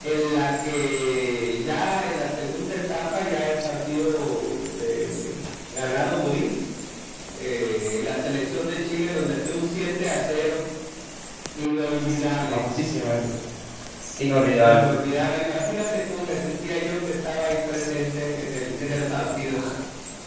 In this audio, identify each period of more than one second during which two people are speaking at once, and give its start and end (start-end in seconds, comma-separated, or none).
none